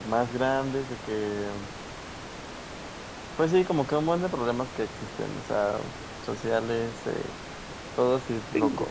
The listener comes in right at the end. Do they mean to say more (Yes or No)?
Yes